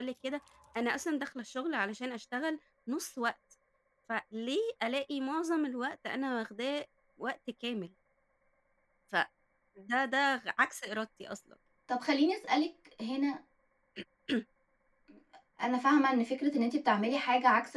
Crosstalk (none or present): none